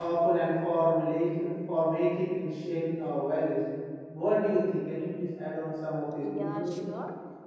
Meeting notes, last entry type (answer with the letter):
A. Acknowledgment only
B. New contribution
B